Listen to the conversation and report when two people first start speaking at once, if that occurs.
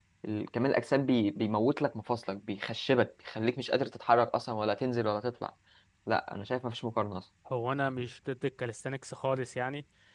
none

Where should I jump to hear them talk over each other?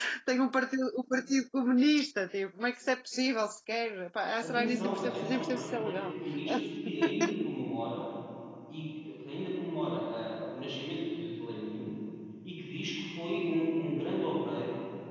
4.4 s

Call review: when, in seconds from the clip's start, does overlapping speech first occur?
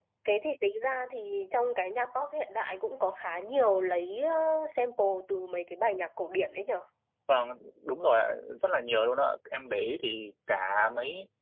none

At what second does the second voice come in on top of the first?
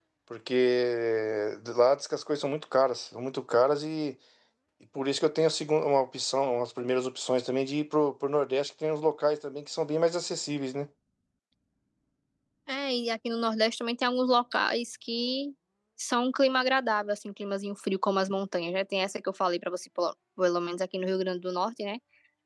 none

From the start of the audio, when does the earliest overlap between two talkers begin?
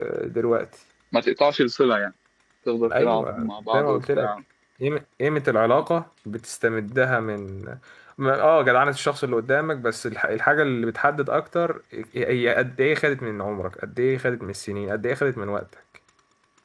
2.9 s

